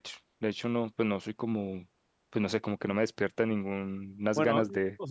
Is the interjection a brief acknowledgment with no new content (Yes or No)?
No